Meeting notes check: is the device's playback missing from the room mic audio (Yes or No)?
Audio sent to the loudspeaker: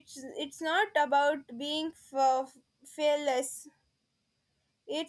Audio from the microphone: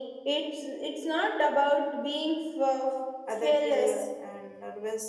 No